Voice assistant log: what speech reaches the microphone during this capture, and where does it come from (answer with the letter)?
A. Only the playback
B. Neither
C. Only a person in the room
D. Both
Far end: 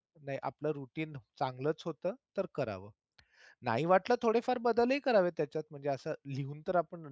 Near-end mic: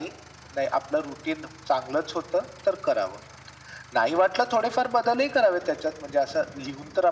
A